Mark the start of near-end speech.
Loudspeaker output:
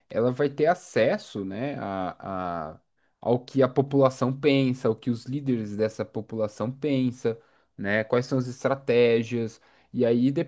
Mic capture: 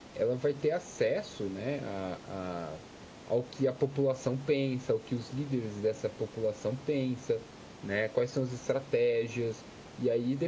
none

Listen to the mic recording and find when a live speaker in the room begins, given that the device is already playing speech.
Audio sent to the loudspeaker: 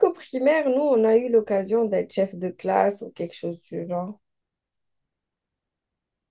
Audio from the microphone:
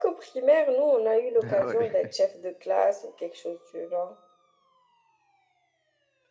1.4 s

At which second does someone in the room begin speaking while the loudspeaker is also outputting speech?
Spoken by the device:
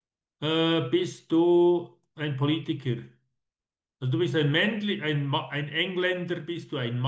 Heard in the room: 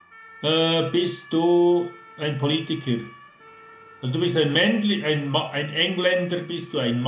none

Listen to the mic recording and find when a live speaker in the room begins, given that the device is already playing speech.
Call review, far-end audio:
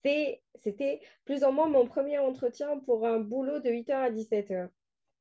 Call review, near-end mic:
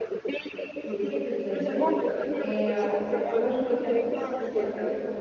0.8 s

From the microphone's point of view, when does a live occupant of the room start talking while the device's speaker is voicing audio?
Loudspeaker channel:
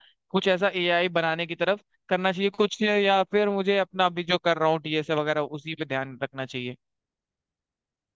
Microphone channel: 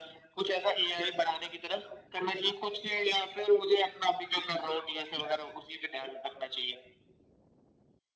none

